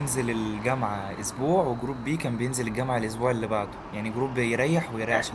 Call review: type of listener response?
listening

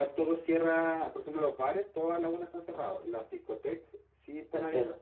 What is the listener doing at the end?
listening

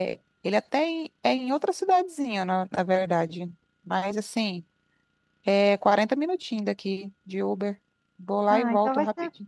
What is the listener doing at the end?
taking over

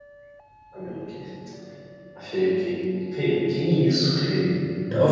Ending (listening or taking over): taking over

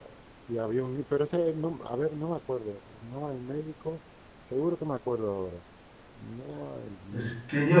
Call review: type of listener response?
taking over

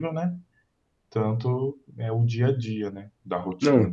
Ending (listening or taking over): taking over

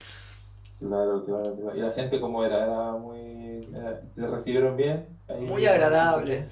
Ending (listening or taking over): taking over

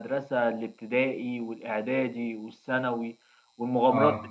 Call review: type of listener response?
listening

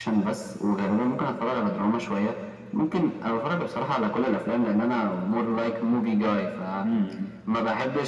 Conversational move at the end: listening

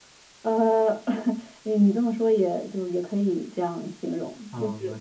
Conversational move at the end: taking over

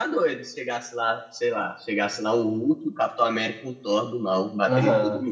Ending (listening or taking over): taking over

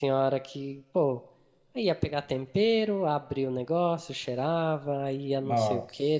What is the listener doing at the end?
listening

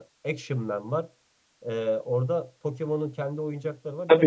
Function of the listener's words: taking over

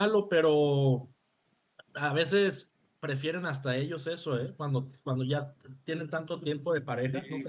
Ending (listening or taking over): taking over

